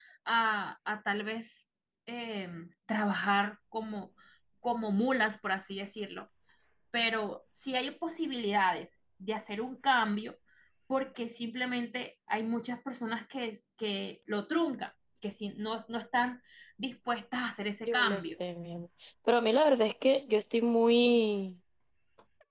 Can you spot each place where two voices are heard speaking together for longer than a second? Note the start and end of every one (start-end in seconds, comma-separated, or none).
none